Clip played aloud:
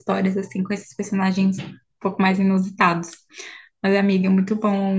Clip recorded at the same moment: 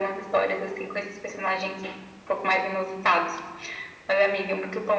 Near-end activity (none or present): none